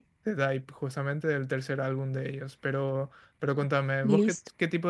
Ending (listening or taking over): listening